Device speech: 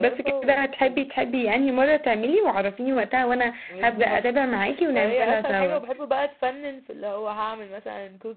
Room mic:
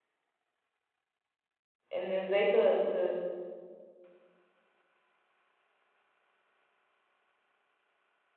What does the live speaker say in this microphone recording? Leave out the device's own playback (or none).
ان ازاي ت... ت...